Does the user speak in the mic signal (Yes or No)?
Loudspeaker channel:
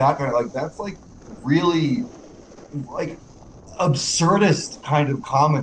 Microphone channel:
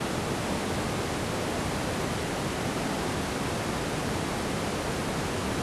No